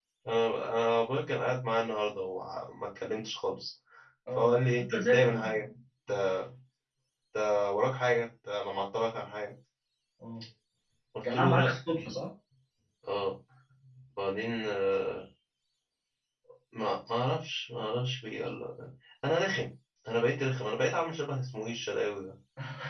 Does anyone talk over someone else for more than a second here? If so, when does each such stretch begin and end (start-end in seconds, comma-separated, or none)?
4.4-5.6